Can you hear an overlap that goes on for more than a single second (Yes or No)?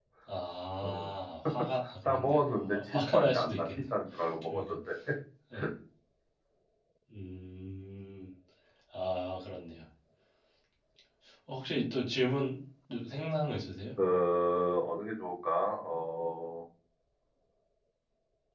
Yes